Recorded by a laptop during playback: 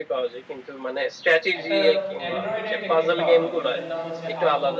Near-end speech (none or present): present